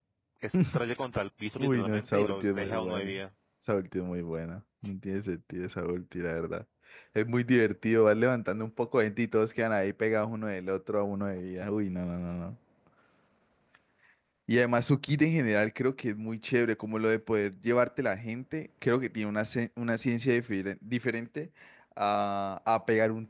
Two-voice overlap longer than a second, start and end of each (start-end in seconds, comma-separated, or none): 1.6-3.1